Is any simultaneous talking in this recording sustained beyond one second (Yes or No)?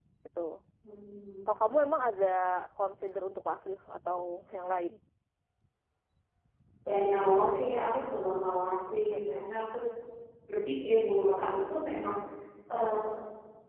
No